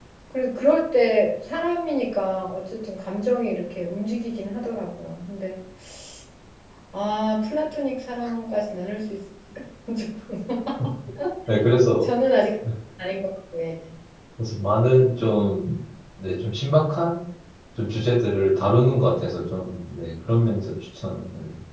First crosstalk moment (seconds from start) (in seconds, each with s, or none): none